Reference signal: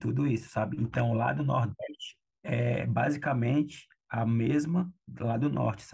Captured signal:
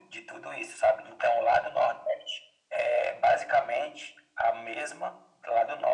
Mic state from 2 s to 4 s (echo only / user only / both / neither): echo only